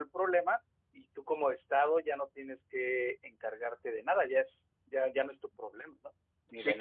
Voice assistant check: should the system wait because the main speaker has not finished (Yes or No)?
No